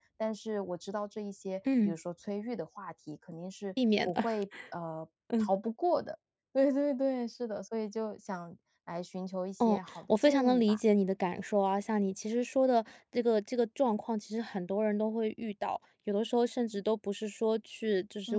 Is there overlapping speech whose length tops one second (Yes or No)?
Yes